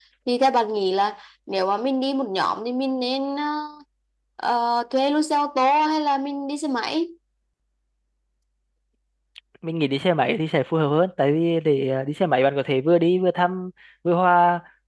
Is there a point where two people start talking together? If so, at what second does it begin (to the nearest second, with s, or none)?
none